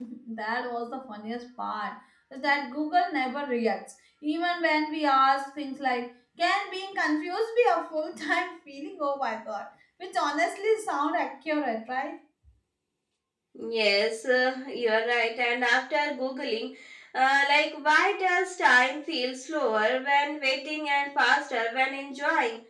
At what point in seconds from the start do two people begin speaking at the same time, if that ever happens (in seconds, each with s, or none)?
none